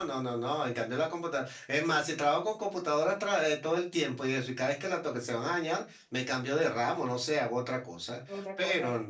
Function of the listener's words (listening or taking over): listening